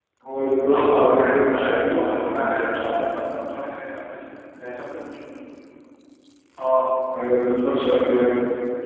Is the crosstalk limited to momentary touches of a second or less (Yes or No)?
No